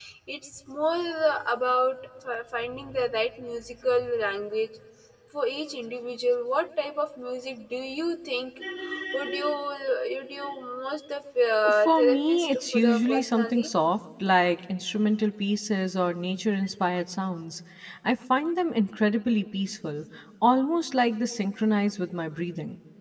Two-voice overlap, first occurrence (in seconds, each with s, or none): 11.7 s